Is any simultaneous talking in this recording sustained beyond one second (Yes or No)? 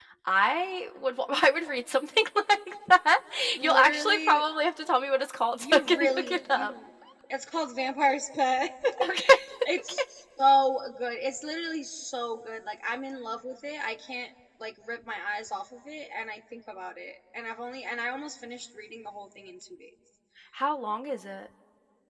Yes